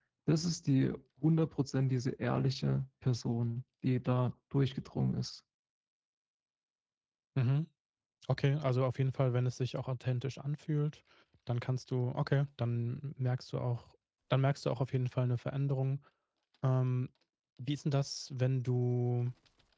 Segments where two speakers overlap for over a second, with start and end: none

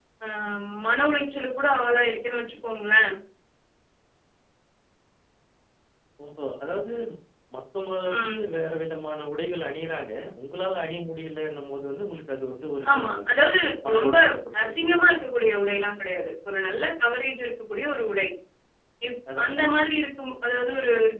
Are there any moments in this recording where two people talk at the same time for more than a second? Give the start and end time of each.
none

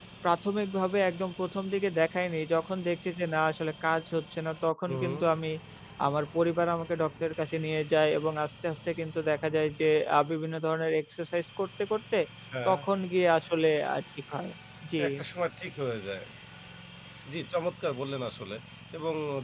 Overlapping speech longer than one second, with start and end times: none

